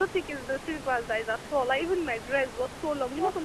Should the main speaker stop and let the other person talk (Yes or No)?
Yes